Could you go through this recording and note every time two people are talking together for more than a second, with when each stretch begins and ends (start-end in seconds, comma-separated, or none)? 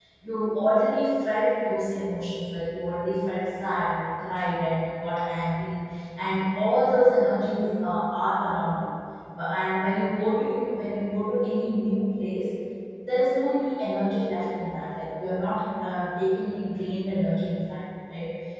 none